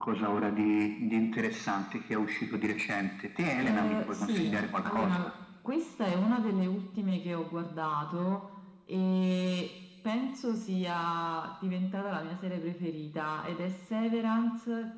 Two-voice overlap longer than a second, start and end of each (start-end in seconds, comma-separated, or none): 3.6-5.3